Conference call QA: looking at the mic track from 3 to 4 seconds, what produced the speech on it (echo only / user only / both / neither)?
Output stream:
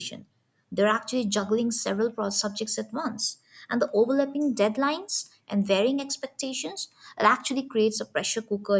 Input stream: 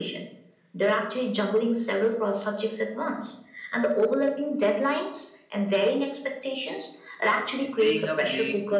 echo only